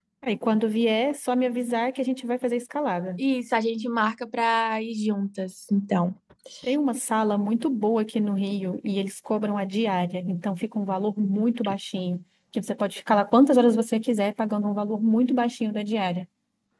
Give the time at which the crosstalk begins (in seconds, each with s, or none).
none